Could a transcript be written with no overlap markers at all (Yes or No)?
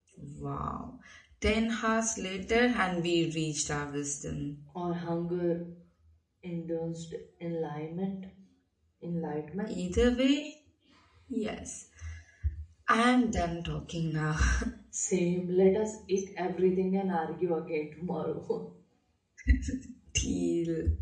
Yes